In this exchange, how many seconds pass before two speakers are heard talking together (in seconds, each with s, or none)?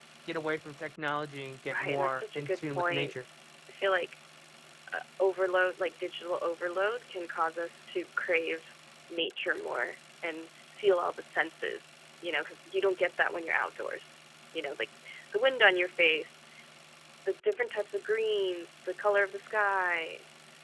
1.7 s